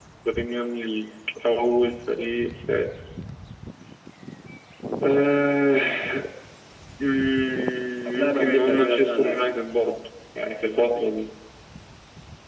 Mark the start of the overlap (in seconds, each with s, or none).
8.0 s